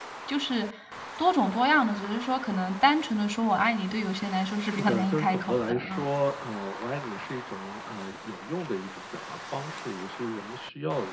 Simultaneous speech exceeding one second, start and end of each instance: 4.7-6.0

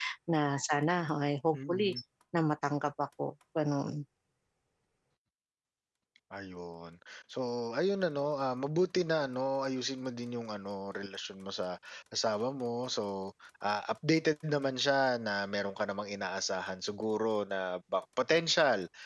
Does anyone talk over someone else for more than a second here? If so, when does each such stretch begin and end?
none

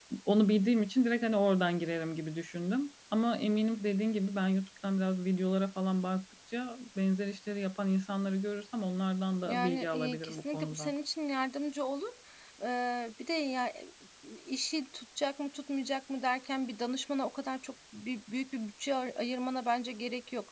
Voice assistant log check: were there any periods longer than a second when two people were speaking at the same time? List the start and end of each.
9.4-10.9

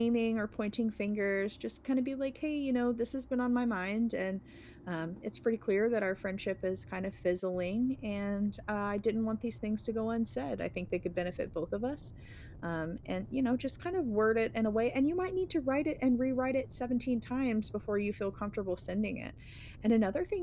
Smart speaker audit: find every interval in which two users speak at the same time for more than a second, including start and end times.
none

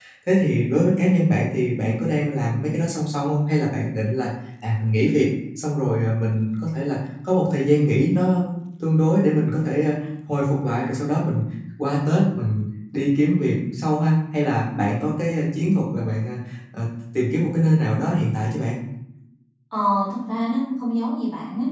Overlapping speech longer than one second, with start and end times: none

